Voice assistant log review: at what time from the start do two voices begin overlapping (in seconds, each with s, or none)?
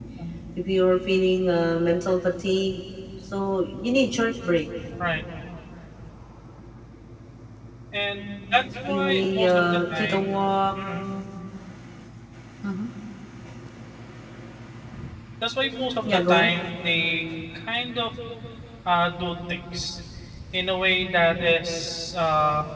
8.8 s